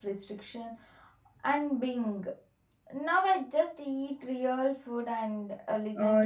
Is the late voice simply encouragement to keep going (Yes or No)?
No